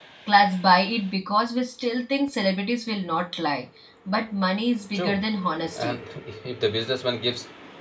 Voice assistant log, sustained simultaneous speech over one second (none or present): none